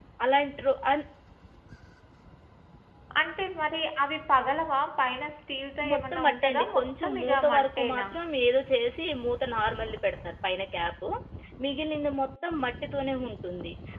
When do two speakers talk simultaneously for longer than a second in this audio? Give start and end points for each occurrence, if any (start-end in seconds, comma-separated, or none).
5.9-8.0